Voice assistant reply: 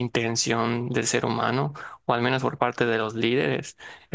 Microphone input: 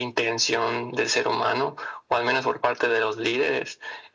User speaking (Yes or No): No